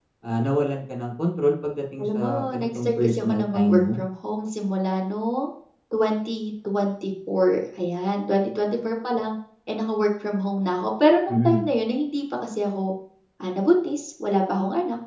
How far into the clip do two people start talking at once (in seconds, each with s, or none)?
2.0 s